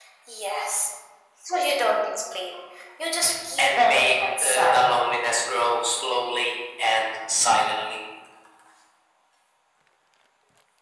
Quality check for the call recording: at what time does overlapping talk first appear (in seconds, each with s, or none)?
3.6 s